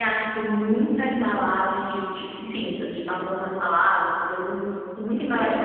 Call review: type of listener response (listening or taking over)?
listening